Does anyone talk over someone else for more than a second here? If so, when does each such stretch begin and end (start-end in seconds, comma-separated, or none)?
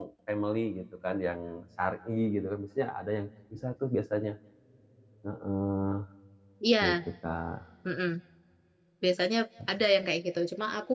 none